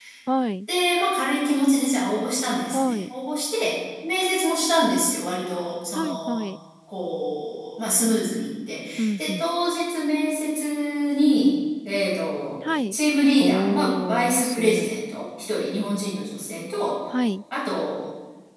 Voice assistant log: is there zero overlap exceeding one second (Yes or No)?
No